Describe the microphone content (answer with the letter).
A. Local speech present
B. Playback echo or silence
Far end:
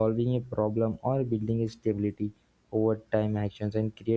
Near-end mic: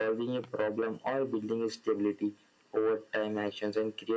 B